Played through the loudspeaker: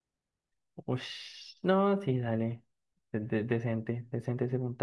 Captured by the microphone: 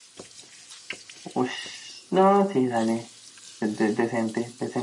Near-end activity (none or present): none